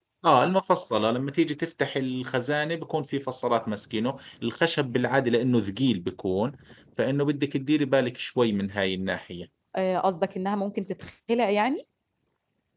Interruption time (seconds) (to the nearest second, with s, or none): none